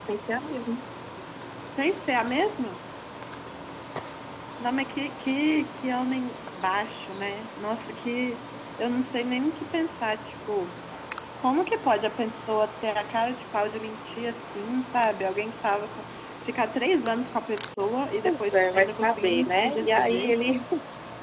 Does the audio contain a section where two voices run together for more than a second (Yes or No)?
Yes